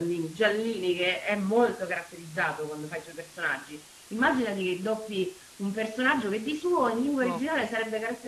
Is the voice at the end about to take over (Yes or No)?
No